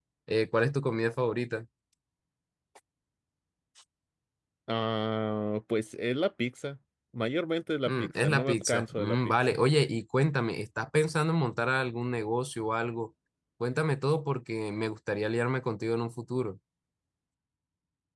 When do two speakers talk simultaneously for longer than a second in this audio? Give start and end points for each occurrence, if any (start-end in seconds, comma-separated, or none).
7.9-9.3